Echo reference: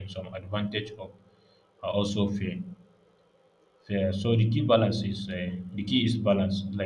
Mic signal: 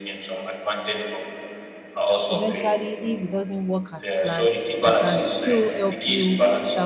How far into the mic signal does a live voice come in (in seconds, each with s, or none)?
2.3 s